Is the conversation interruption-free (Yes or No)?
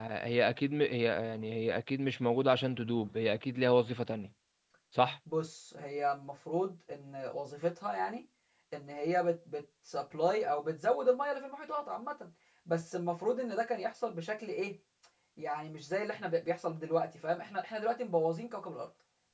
Yes